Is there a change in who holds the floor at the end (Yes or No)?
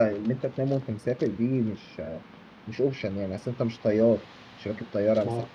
No